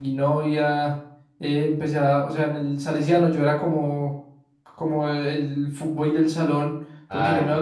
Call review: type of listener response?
listening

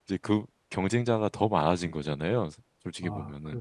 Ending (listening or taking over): taking over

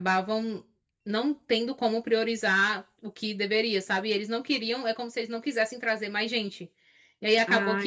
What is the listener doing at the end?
listening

